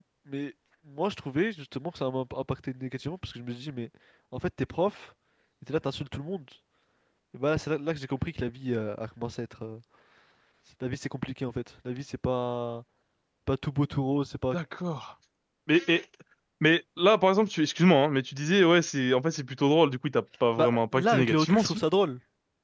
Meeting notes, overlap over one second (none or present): present